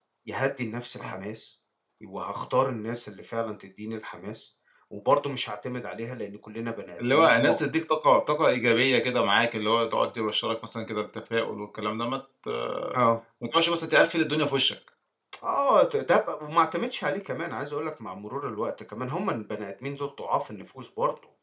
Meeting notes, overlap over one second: none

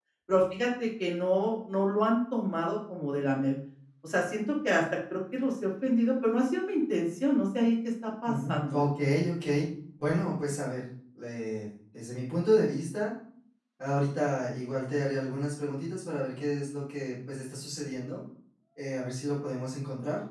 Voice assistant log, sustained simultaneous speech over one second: none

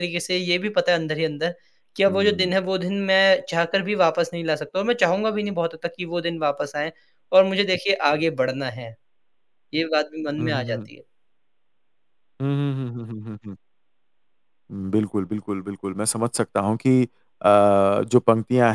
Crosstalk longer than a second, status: none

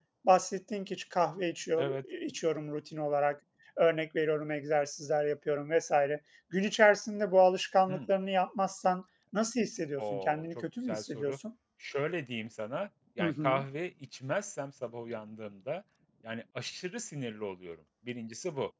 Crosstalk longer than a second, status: present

